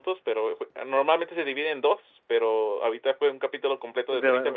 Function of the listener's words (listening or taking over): taking over